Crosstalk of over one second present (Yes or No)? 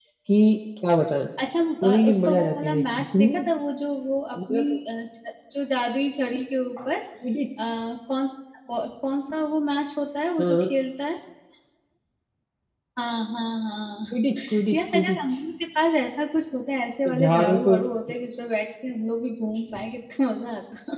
Yes